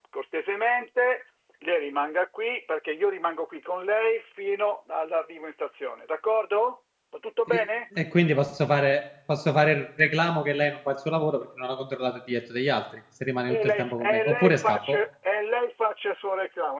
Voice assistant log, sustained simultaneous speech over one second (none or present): present